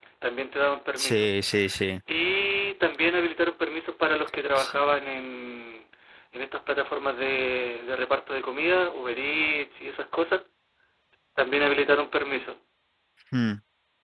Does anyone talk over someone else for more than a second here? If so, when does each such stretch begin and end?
none

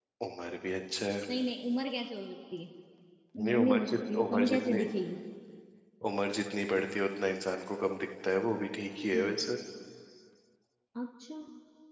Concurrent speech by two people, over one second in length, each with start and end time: 3.4-4.8

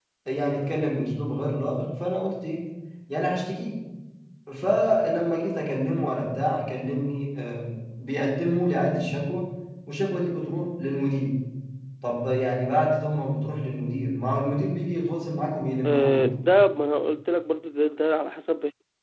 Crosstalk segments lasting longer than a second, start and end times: none

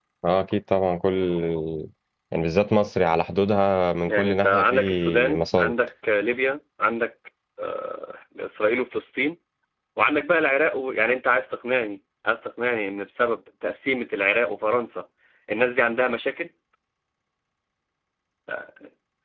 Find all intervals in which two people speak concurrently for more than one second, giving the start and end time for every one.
4.1-5.7

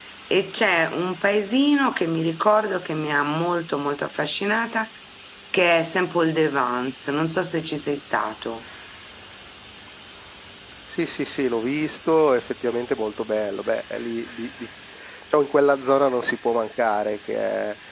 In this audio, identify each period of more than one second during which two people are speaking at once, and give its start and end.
none

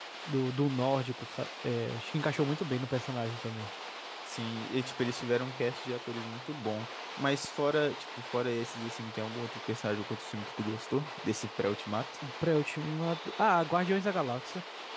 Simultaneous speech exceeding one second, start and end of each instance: none

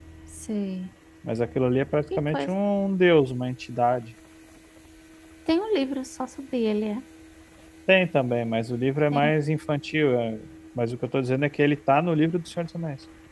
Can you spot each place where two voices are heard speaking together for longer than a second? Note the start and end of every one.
none

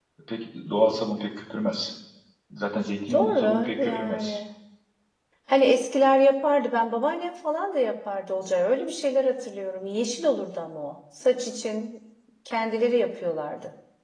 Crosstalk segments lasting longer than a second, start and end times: 3.1-4.4

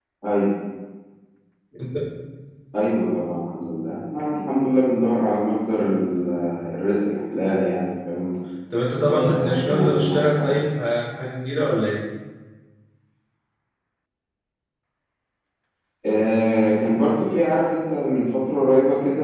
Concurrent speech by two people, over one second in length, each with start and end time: 8.9-10.6

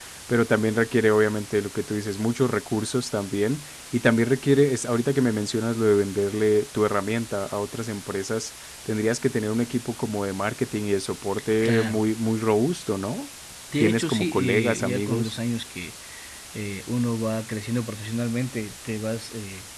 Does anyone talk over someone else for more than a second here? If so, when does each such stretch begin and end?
13.8-15.3

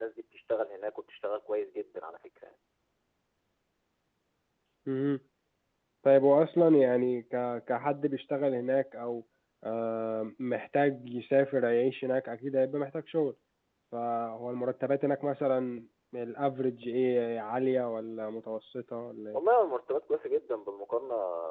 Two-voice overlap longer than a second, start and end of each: none

